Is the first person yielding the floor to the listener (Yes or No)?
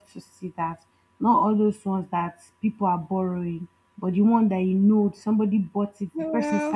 No